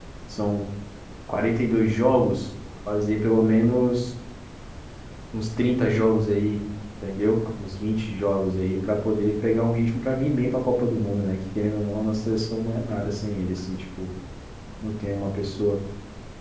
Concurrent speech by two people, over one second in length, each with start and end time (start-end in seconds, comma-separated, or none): none